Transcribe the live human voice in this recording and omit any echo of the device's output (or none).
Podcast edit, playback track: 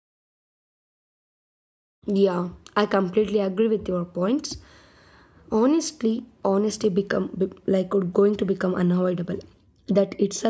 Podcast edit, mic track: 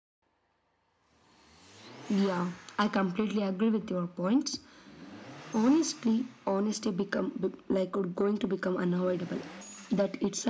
none